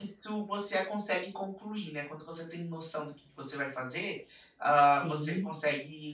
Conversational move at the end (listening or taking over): listening